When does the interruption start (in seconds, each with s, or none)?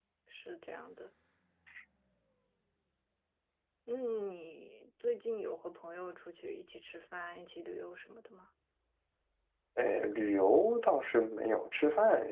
none